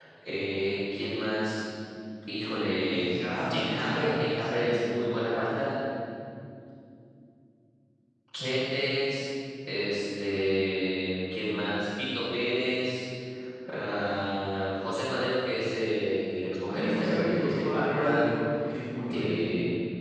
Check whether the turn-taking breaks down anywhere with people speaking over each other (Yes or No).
Yes